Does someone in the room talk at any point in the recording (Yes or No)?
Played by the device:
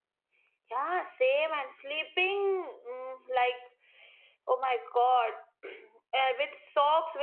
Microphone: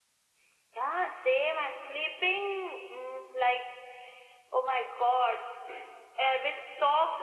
No